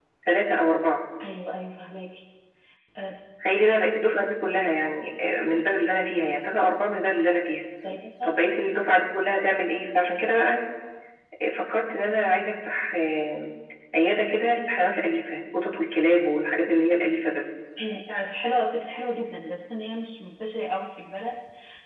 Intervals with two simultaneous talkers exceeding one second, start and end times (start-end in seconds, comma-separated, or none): none